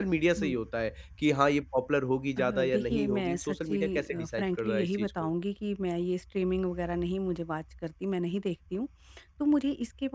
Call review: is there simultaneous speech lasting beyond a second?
Yes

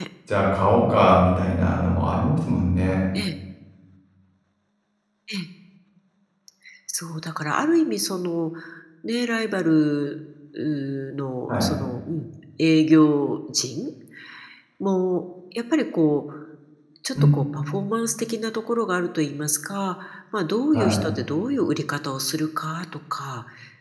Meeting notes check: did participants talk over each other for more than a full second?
No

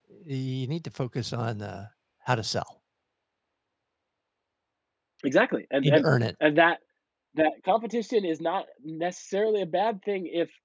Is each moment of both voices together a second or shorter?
Yes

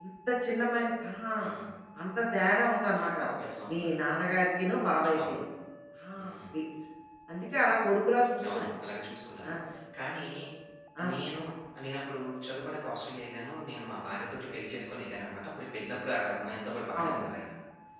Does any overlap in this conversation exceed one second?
No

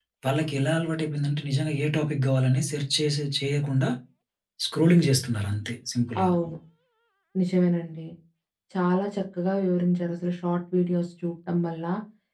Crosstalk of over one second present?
No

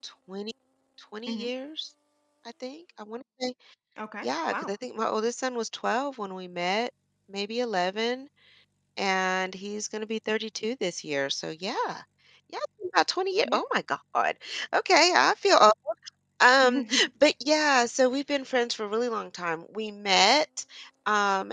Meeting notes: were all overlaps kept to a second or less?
Yes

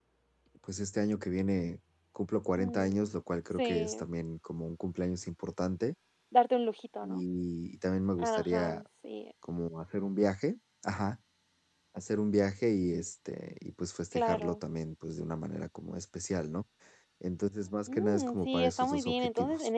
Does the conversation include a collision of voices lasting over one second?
Yes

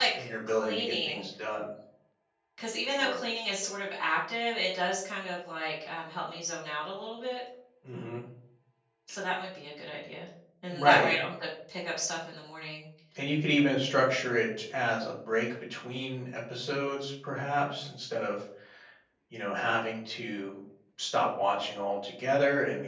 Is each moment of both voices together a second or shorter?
No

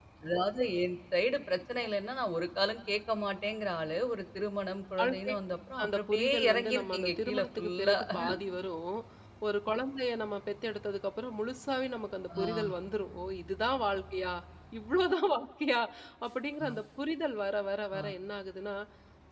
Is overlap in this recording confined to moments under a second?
No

